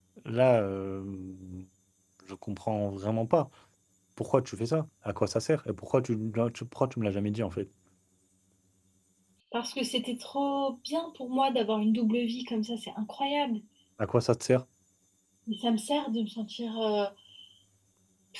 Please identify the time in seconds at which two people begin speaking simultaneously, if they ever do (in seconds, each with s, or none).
none